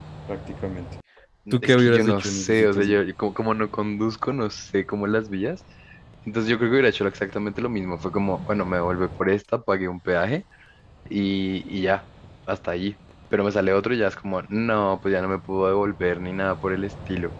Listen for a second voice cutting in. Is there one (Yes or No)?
Yes